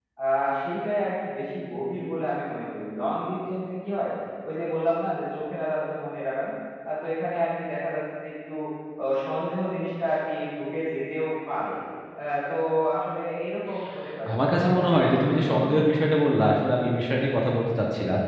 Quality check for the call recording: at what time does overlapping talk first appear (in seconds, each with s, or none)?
14.3 s